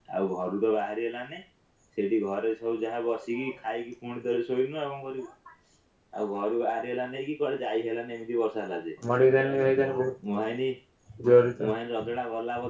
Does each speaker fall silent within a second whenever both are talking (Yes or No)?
Yes